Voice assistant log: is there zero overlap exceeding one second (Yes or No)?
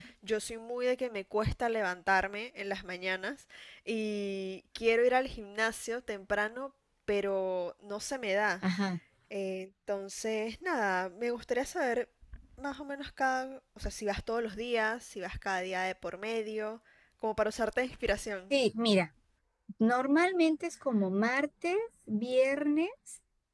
Yes